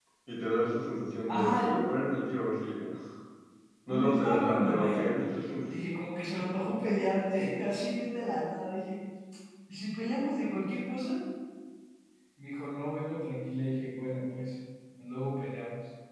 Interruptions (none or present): present